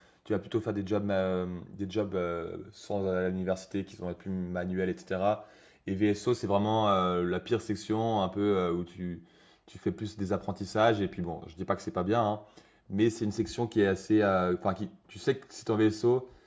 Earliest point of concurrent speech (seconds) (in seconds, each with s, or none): none